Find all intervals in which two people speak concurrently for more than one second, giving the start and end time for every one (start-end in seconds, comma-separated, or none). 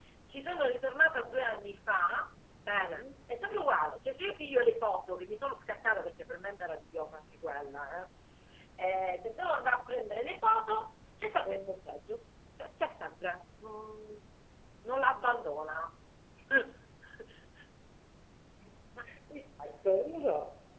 none